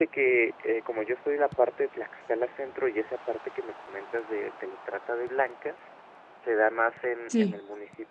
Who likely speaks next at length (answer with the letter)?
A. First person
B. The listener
A